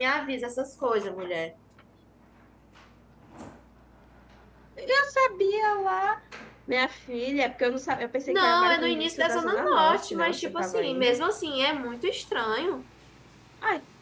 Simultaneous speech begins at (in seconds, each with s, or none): 8.3 s